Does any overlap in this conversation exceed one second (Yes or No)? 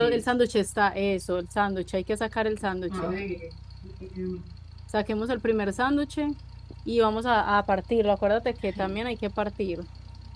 No